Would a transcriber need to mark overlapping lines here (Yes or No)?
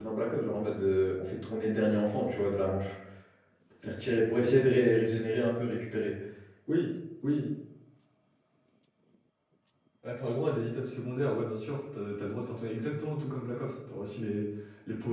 No